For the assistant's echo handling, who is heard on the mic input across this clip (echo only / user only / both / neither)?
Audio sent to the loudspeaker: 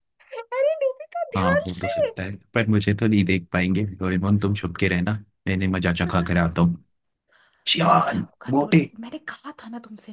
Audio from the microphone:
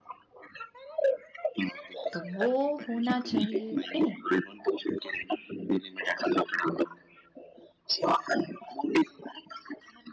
both